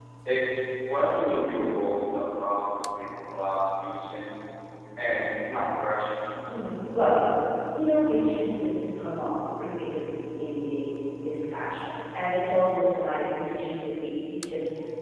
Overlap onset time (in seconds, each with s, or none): none